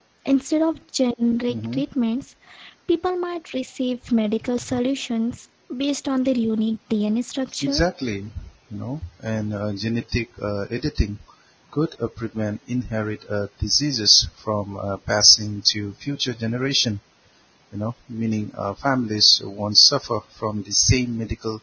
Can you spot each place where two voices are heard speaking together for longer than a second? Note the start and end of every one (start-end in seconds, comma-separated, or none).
none